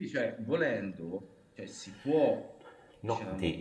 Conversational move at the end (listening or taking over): taking over